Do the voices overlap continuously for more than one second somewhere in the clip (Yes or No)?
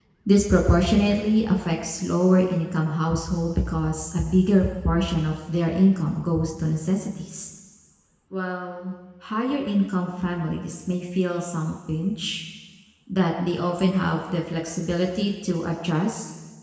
No